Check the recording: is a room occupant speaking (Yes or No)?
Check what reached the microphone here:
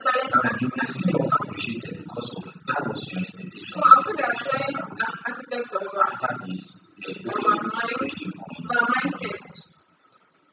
No